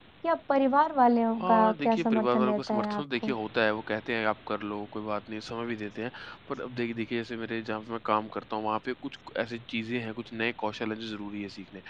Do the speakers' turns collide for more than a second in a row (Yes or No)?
Yes